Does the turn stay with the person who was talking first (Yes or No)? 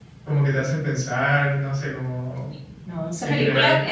No